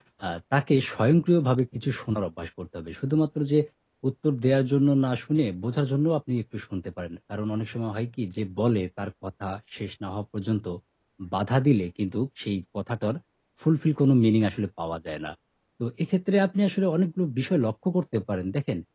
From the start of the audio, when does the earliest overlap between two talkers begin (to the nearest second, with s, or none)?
none